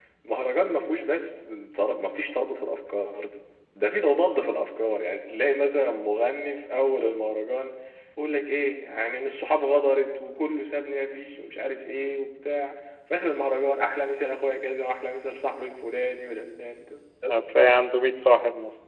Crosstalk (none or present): none